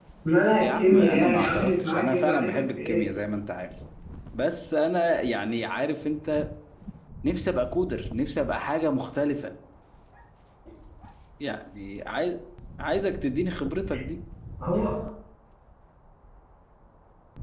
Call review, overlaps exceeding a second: present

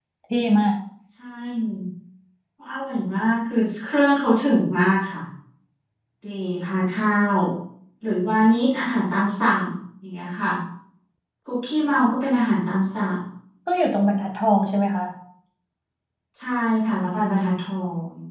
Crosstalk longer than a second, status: none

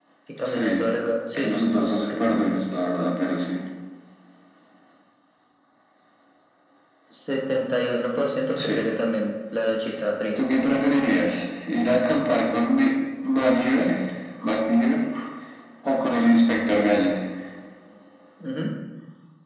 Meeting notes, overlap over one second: present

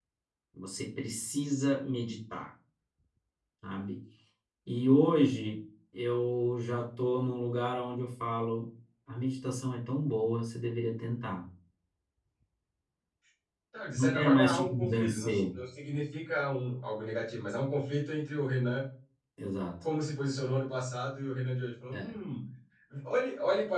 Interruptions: present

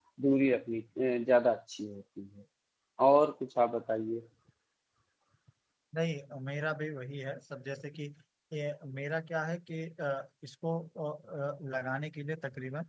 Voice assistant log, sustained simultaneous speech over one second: none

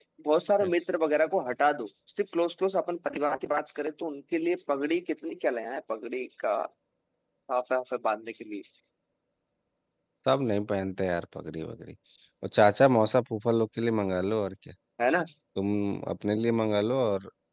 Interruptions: none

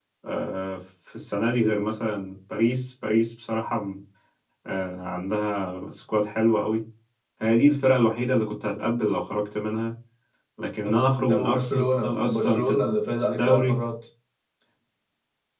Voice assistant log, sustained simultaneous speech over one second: present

